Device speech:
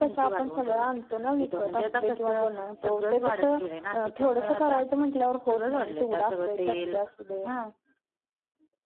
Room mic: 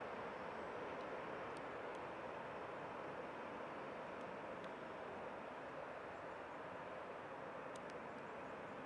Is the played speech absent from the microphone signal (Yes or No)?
Yes